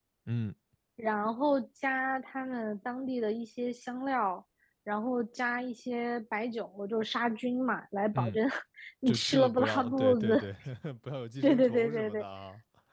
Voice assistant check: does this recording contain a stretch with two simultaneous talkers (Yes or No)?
Yes